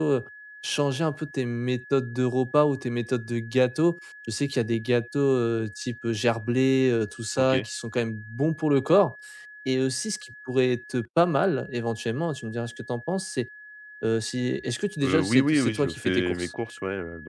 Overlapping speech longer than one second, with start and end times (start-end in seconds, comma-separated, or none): 15.0-16.5